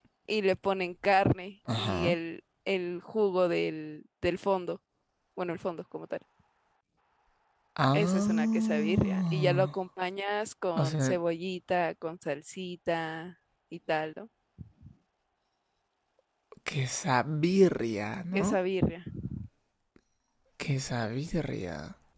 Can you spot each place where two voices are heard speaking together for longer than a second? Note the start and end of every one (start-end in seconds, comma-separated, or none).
7.9-9.7